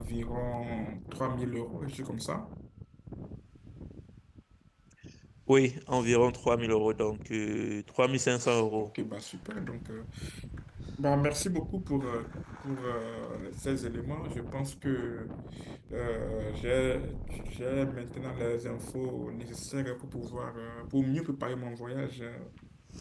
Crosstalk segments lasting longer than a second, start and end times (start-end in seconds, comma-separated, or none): none